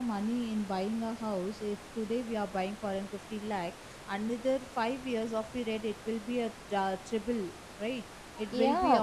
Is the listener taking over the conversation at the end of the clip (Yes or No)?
Yes